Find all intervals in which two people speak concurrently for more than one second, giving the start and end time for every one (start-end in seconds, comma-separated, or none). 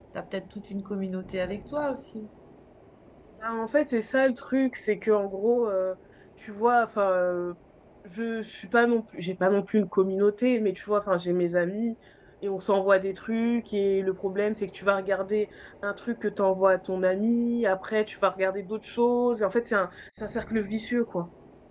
none